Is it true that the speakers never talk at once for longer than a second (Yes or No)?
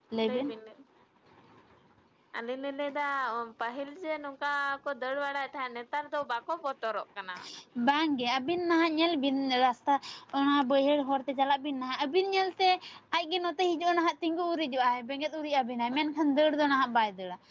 Yes